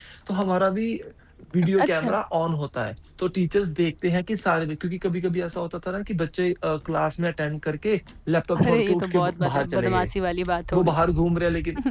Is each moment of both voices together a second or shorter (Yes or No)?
No